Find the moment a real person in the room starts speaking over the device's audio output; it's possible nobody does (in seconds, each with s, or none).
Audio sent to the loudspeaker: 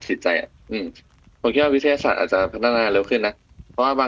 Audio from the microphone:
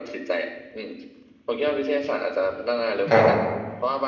3.1 s